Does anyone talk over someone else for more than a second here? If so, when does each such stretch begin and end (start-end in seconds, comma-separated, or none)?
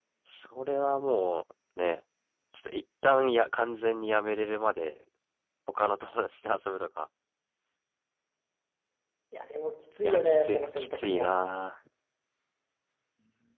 10.0-11.3